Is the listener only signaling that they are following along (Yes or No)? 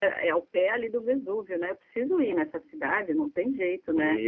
No